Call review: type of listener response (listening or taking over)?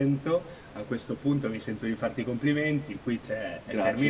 listening